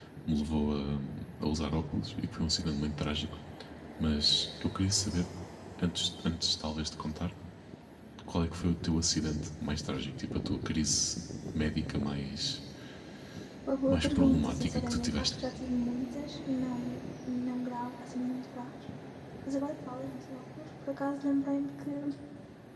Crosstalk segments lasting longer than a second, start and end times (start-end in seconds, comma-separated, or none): 13.9-15.4